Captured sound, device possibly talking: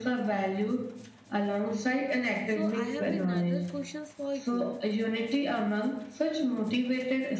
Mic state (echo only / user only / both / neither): both